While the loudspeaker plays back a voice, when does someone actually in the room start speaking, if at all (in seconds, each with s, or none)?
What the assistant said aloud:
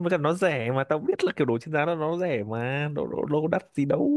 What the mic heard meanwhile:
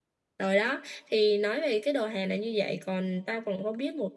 0.4 s